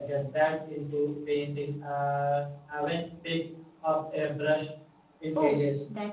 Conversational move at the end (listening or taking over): taking over